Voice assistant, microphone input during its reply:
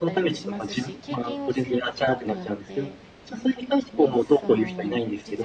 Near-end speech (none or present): present